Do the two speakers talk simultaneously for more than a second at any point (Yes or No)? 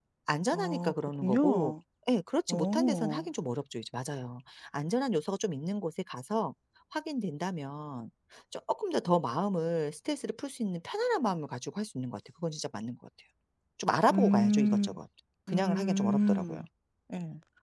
Yes